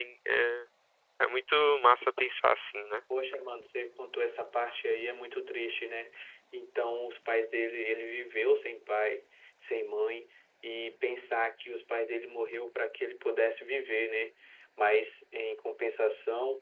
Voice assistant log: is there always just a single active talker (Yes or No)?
Yes